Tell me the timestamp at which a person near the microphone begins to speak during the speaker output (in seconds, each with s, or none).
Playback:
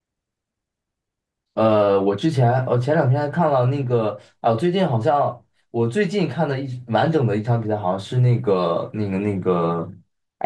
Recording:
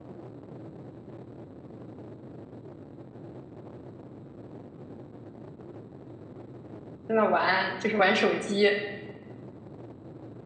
7.1 s